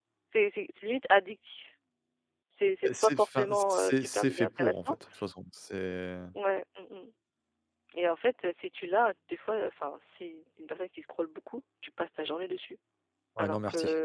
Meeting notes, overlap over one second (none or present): present